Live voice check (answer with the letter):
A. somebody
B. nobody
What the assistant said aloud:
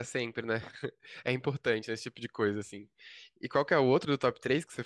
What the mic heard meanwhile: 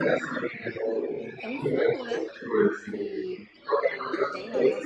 A